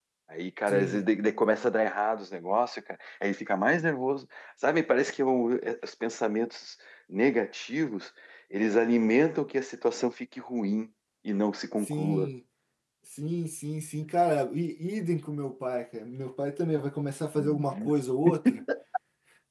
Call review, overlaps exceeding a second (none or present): none